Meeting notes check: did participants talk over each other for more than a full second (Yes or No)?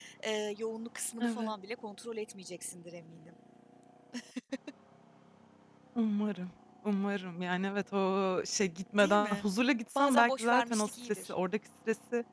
Yes